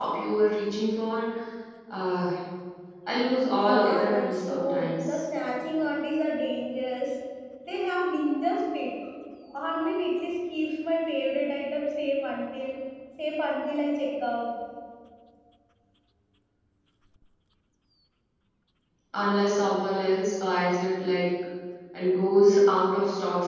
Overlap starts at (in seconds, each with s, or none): 3.6 s